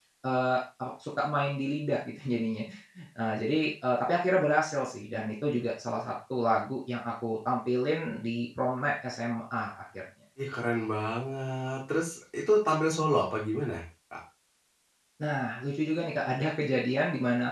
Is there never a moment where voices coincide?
Yes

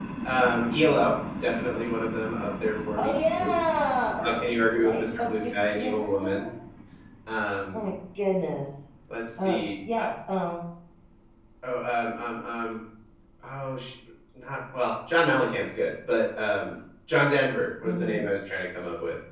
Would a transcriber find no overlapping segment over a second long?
No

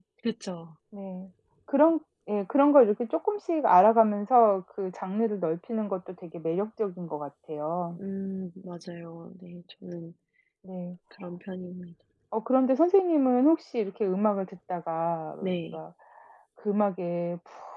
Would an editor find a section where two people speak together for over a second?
No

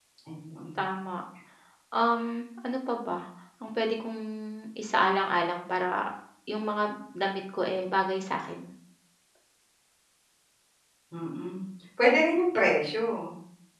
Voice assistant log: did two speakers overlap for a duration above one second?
No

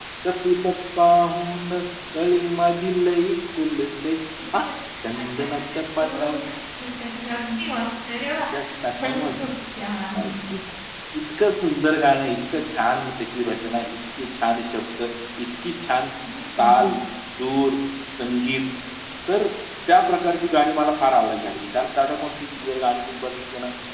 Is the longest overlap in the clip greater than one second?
Yes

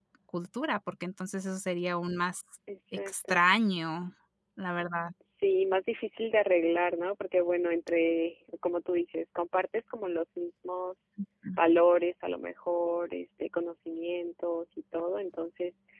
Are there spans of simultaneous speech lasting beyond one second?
No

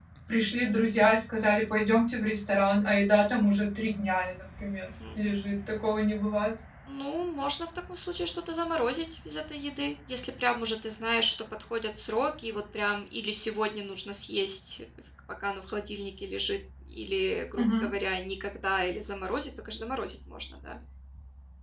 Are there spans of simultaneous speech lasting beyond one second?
No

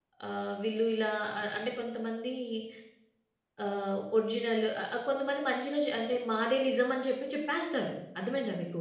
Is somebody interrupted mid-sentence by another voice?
No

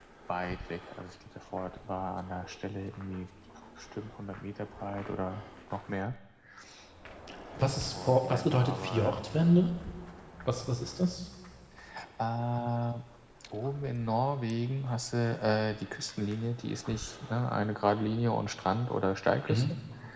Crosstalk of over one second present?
Yes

